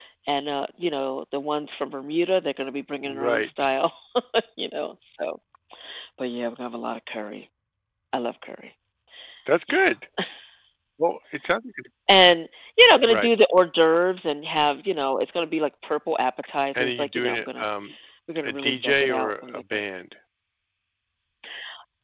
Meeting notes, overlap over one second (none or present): present